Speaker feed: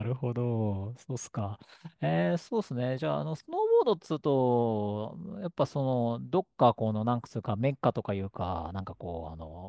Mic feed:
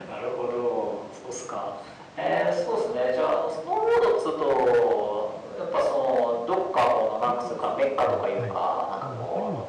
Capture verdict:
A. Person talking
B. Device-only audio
A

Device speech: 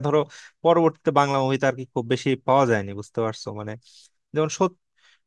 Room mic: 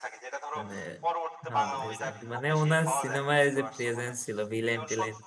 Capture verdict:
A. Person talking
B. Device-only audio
A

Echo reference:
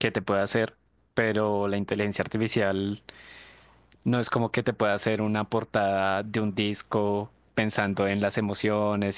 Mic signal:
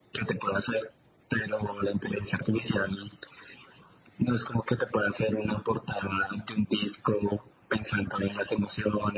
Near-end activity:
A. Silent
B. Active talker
A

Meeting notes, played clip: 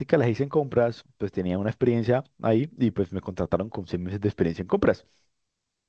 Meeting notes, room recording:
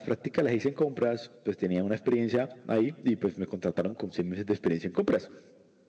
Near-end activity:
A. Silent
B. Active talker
A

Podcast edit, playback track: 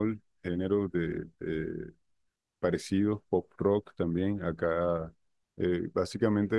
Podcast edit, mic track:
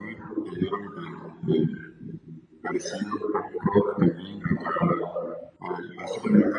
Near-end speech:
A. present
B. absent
B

